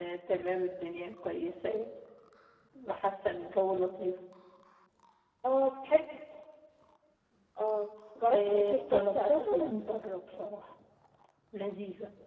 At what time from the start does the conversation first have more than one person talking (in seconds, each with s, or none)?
8.3 s